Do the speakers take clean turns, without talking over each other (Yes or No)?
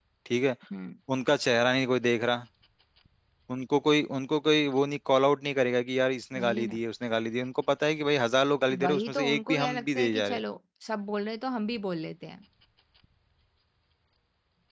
No